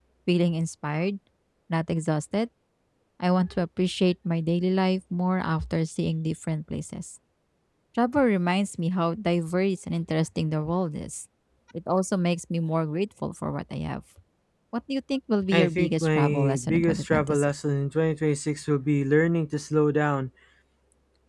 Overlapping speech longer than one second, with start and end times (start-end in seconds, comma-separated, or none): 15.5-17.5